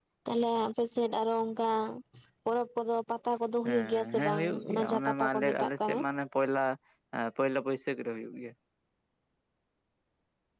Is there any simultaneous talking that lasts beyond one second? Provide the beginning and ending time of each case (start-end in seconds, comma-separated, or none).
3.6-6.0